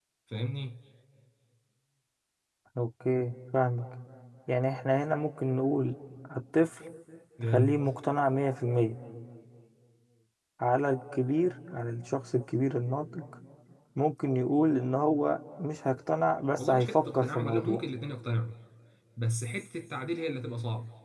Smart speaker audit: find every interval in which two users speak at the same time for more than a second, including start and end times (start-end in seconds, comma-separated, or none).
16.6-17.8